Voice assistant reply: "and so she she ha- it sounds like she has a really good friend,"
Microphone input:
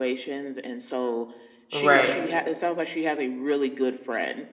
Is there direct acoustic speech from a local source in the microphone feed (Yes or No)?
Yes